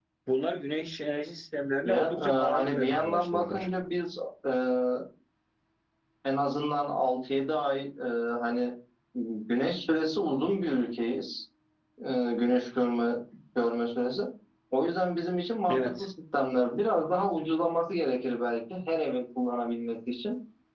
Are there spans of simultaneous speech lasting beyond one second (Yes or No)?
Yes